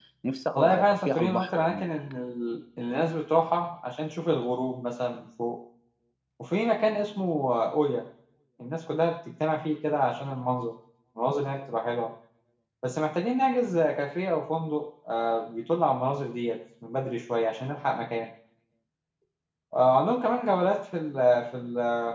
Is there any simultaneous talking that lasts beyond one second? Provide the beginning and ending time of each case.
0.5-1.9

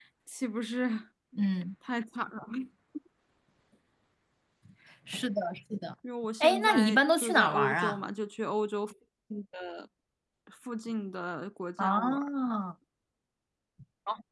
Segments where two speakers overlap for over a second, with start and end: 6.4-8.0

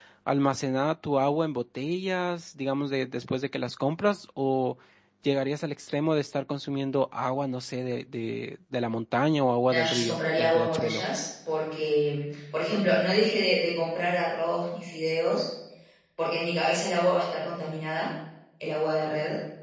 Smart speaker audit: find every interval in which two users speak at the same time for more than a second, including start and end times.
9.7-11.0

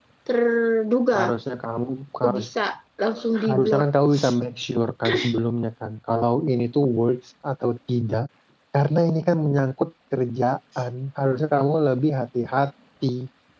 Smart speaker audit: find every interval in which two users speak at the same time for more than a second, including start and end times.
none

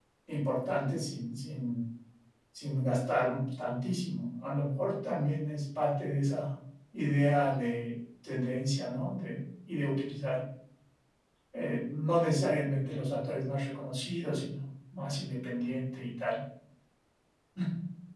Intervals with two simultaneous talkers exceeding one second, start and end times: none

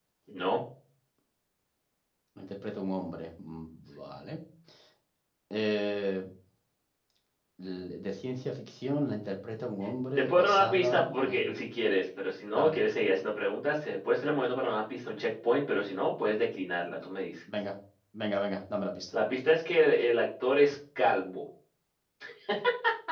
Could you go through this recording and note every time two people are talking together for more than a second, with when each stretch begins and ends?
10.2-11.5

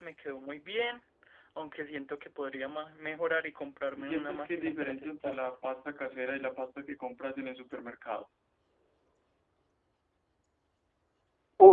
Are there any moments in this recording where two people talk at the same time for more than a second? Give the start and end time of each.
4.0-5.5

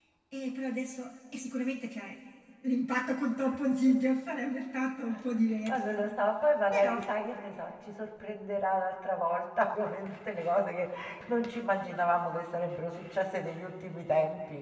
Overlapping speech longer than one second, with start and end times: none

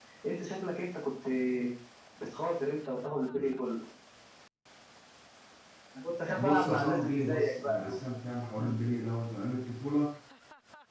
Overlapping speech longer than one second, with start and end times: 6.4-8.0

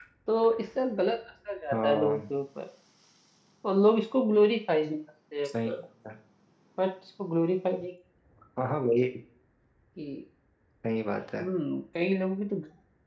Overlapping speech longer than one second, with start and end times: none

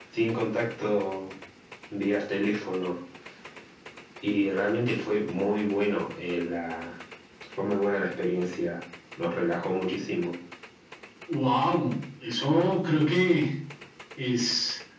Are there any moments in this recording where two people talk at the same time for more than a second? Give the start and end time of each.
none

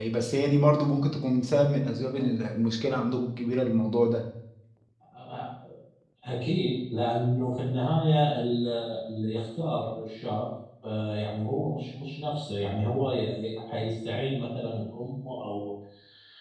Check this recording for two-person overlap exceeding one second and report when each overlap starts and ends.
none

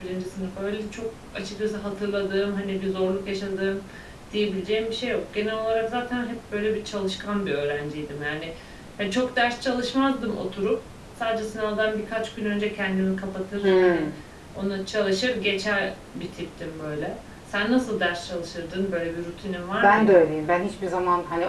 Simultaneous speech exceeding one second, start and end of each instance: none

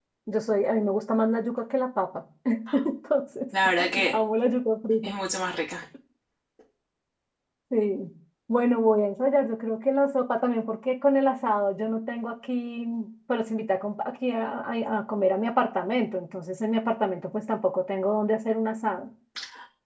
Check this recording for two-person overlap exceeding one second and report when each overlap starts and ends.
none

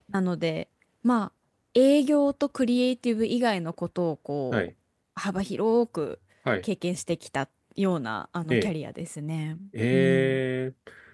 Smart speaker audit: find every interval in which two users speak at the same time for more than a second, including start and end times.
none

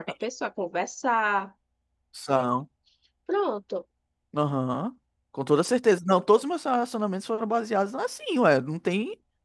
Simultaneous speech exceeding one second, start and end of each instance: none

